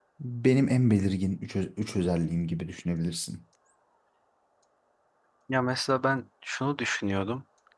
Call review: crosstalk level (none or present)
none